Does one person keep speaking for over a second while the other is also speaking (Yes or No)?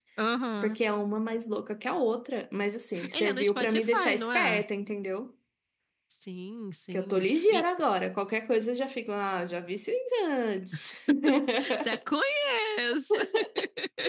Yes